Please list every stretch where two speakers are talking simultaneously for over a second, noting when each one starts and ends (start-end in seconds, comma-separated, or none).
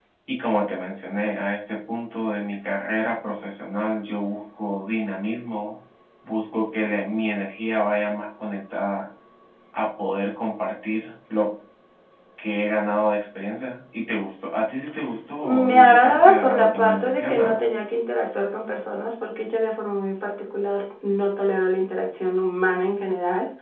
15.4-17.7